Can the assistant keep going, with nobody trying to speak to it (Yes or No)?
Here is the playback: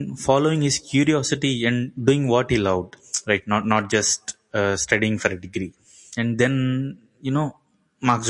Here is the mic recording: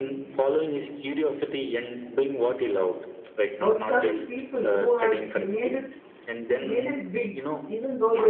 No